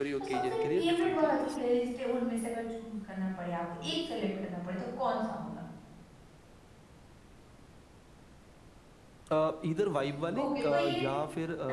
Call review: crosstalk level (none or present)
present